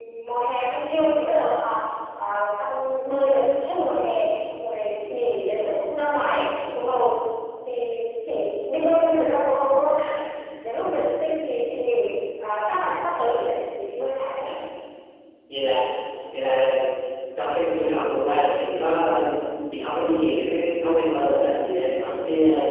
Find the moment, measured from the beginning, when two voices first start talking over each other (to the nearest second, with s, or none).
none